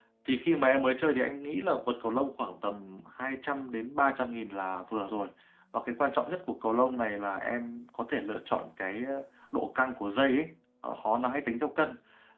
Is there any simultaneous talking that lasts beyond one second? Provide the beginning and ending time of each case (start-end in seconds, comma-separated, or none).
none